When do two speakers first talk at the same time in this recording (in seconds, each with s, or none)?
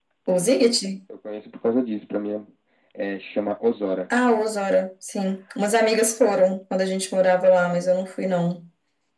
none